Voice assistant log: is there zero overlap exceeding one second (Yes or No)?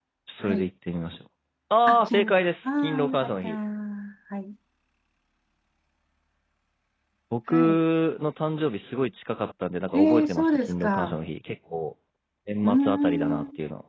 No